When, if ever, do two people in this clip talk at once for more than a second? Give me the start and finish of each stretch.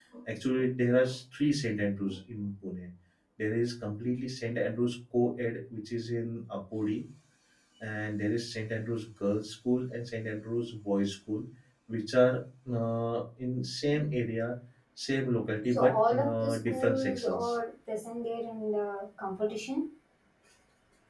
15.7-17.6

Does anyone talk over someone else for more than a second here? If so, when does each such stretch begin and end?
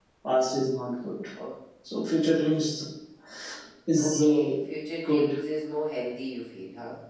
none

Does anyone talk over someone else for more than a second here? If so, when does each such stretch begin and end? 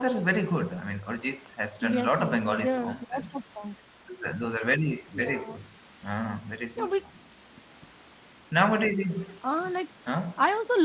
1.8-3.2

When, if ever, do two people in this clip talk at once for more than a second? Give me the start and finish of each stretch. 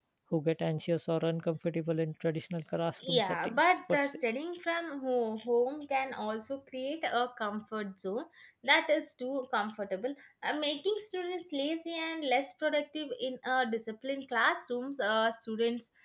3.0-4.2

